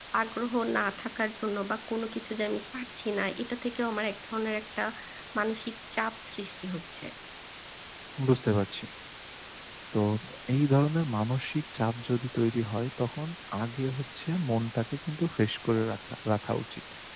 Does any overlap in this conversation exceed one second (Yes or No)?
No